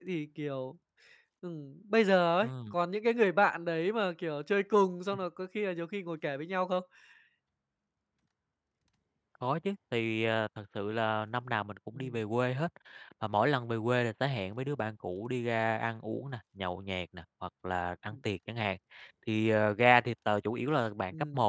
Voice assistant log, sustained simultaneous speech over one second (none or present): none